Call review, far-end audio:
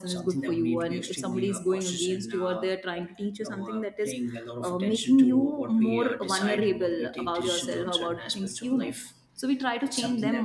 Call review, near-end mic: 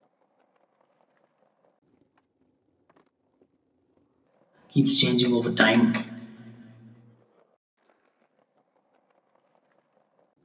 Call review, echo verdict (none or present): none